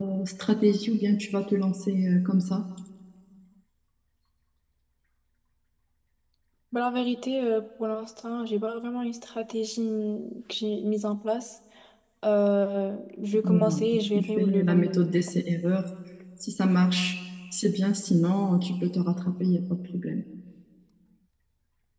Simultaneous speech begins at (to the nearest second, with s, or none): 13 s